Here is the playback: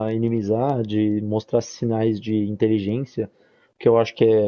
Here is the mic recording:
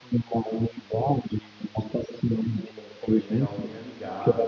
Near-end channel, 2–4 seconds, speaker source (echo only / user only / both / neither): both